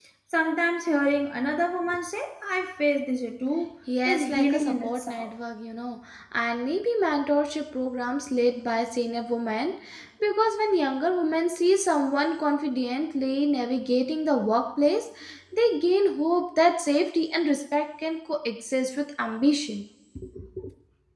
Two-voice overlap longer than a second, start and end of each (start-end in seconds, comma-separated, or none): 4.0-5.3